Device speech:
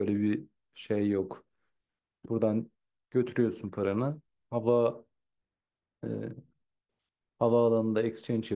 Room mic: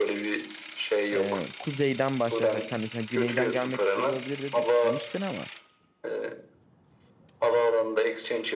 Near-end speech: present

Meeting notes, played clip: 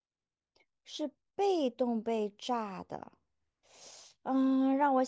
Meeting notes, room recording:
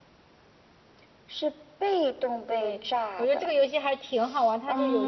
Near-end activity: present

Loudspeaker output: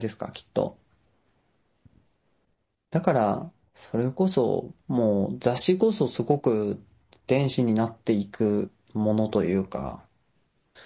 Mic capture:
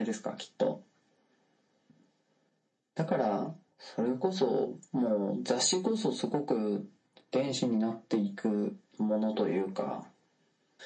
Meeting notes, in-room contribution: none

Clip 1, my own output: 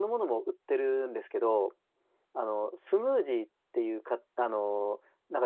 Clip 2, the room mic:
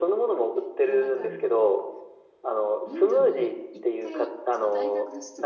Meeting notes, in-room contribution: present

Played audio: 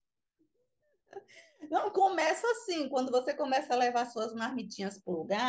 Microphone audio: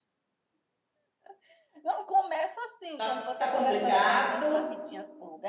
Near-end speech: present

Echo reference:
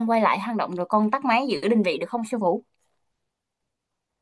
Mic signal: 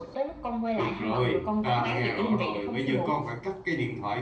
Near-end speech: present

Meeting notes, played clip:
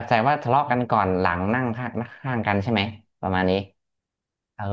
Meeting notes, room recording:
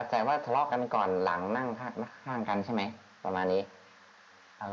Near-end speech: none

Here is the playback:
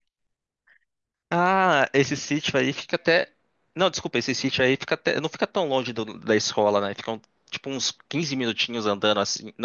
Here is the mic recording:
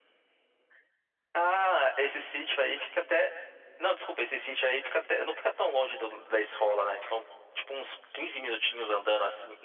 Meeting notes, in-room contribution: none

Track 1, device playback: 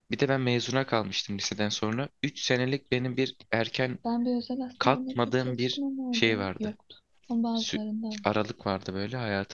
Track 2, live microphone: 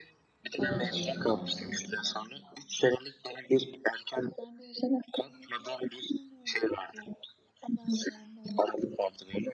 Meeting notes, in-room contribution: present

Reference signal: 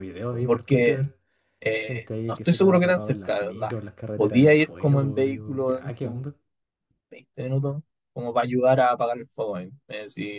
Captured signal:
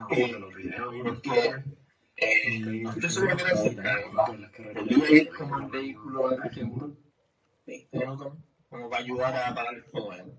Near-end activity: present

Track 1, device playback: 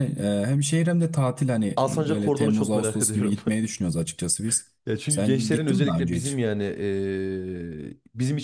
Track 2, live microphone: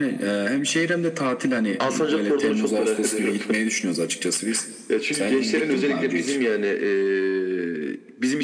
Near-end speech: none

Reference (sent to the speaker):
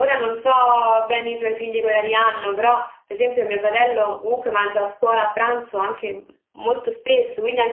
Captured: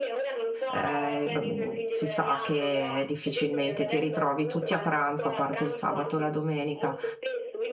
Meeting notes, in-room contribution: present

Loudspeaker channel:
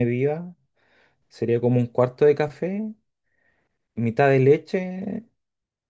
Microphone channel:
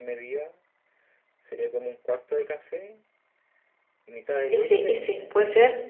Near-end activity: present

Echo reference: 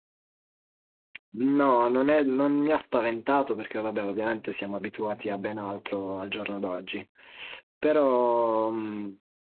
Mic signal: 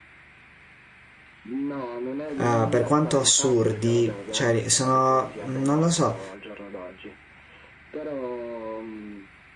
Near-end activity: present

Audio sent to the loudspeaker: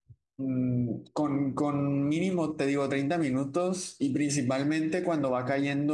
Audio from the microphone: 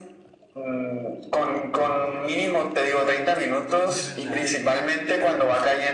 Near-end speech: present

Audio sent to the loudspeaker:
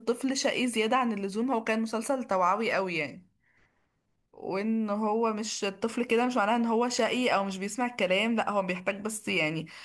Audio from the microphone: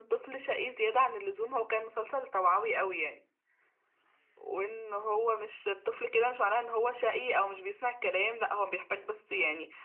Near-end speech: none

